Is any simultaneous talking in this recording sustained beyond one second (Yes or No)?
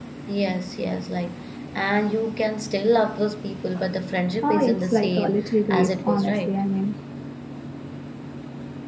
Yes